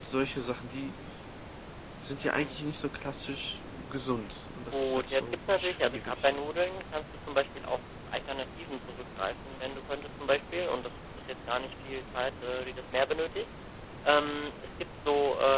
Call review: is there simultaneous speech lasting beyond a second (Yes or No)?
Yes